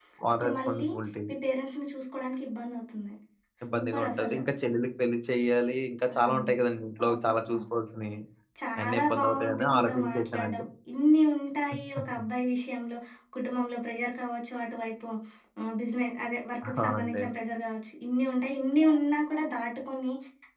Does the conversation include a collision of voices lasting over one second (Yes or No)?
Yes